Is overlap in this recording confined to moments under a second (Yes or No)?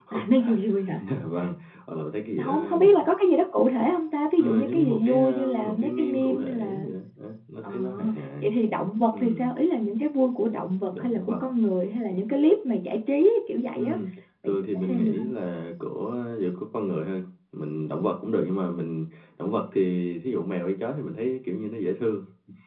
No